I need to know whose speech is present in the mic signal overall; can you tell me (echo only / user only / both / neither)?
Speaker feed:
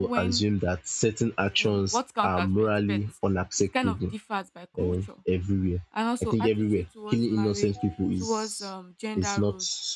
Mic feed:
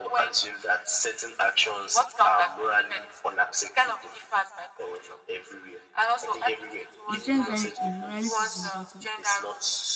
both